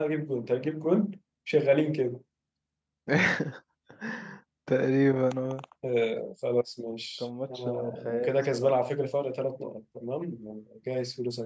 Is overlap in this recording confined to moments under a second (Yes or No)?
No